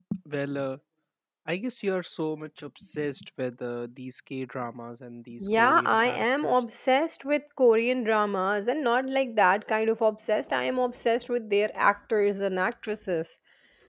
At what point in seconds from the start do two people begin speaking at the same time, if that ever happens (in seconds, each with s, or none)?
5.4 s